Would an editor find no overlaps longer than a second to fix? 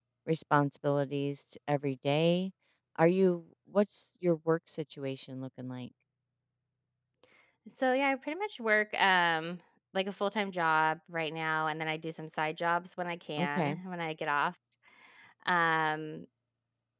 Yes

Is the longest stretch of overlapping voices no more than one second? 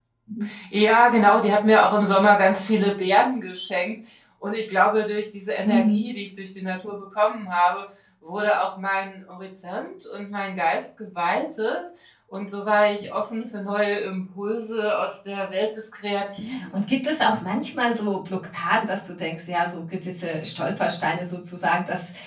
Yes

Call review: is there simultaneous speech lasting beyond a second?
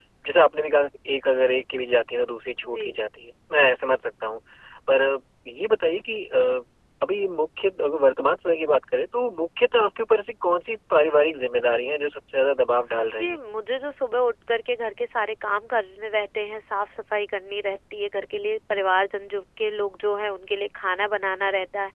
No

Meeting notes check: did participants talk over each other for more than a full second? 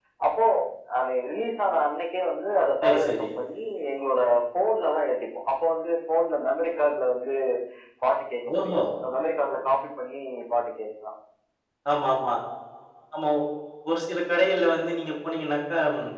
No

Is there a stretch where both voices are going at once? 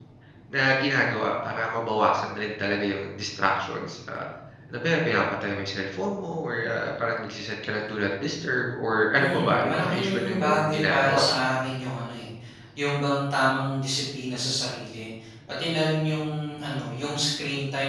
Yes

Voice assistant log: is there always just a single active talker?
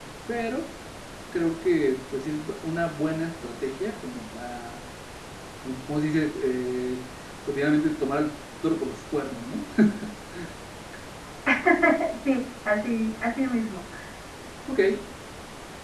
Yes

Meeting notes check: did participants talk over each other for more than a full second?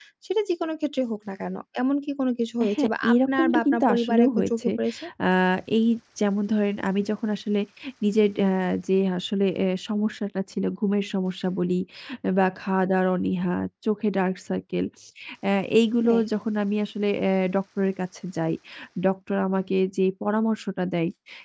Yes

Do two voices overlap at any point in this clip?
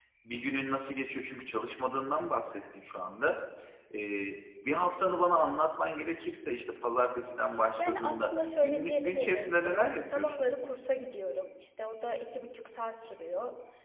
Yes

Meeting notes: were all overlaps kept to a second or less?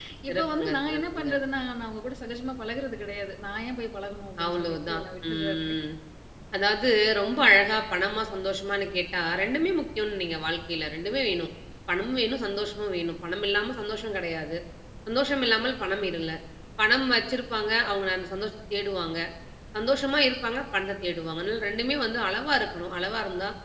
No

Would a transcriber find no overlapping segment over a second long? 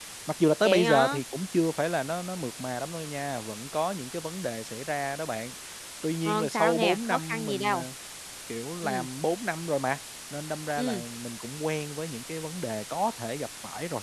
No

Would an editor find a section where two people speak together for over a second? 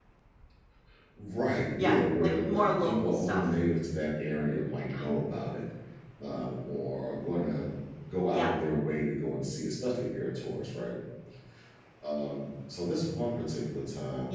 Yes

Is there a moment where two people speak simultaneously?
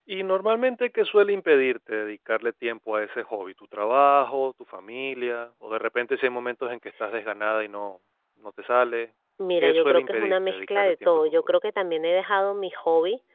Yes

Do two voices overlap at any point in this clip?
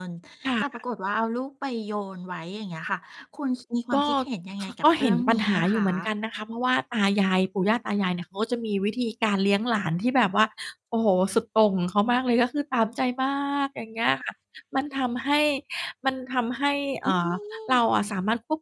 Yes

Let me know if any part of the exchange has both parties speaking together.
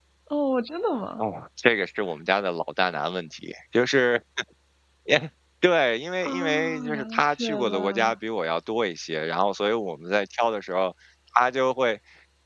Yes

